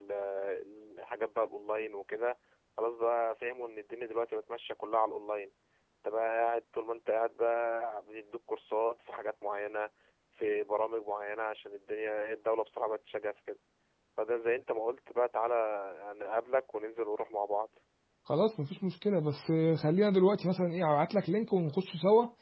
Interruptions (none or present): none